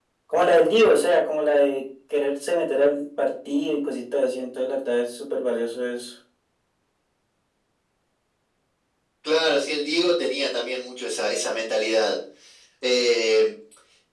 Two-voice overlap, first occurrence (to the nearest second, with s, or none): none